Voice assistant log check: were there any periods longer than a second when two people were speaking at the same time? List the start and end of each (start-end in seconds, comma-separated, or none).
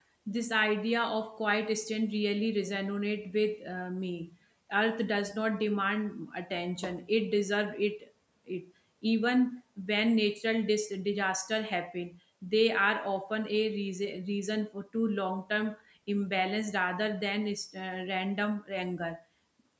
none